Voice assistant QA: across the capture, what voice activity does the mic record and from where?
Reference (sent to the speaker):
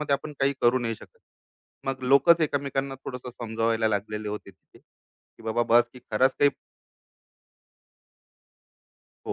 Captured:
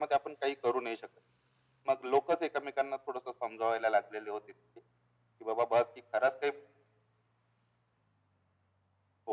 echo only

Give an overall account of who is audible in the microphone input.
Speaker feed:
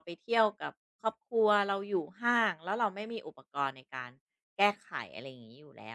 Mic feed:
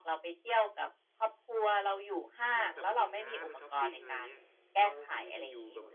both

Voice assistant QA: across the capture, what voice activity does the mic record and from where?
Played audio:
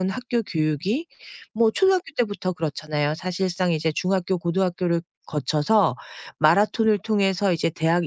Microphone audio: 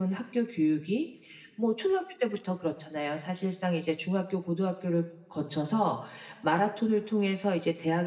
echo only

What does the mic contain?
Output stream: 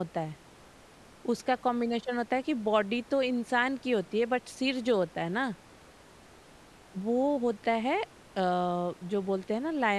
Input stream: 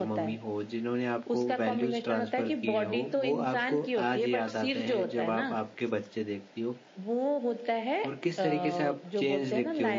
both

